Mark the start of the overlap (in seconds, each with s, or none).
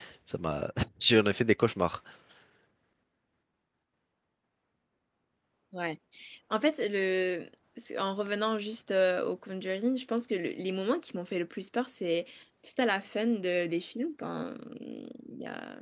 none